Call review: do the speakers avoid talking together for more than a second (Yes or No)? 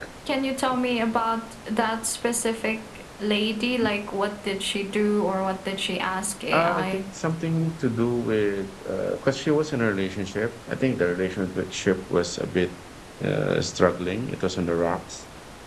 Yes